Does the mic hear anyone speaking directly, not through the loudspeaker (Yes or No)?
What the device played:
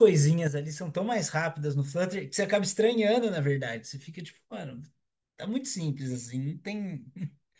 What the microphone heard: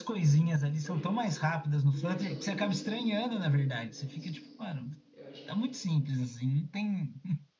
Yes